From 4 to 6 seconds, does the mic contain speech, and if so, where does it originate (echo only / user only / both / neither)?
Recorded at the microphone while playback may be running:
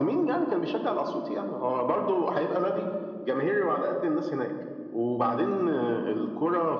echo only